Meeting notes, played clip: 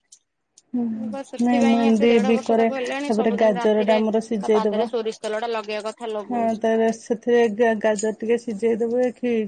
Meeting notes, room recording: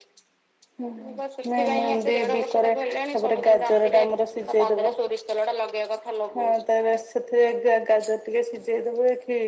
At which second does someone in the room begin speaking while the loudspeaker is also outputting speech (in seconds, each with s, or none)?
none